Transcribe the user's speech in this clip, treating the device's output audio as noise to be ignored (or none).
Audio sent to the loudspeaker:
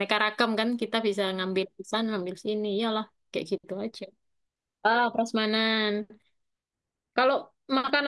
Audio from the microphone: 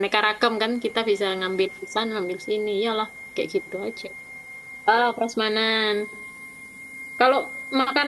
none